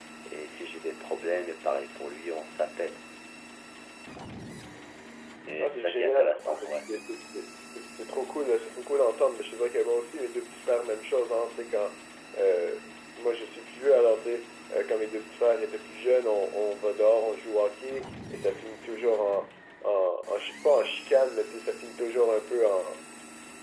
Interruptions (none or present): present